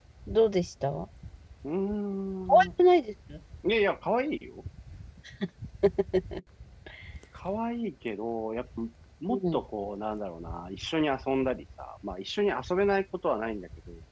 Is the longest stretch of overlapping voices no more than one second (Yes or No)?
Yes